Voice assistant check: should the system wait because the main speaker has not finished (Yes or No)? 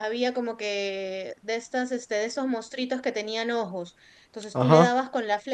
Yes